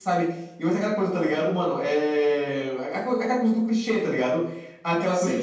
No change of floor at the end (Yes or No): Yes